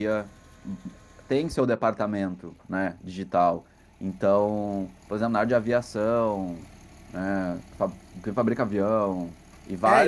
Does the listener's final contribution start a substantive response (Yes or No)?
Yes